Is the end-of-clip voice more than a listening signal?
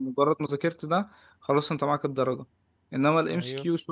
No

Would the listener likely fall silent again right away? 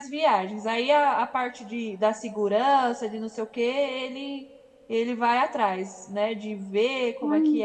Yes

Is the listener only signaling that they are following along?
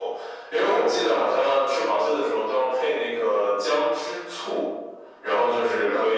Yes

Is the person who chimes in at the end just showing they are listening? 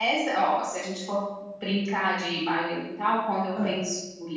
Yes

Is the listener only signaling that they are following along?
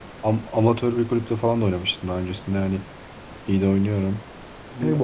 No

